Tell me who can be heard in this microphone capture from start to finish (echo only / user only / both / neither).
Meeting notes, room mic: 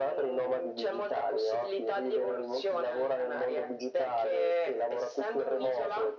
echo only